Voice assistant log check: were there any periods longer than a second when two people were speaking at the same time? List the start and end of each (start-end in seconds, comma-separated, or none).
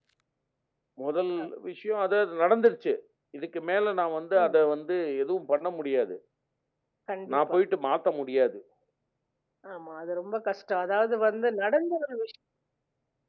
none